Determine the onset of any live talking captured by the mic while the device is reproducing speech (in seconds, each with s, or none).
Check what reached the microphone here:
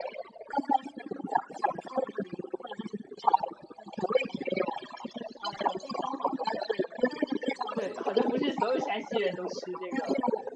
7.7 s